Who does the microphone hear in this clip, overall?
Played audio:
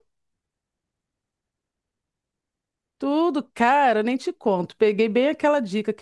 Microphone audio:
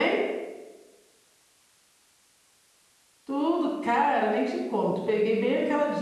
echo only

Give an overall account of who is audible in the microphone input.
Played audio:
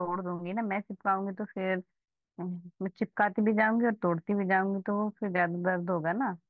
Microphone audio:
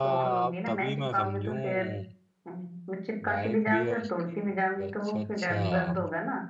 both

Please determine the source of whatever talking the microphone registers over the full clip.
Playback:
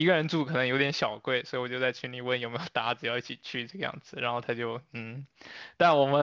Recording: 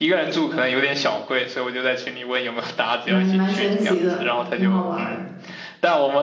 both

